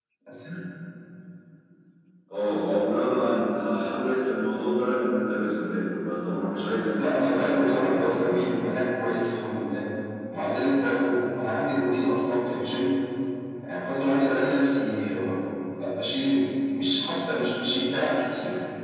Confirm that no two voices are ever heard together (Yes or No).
No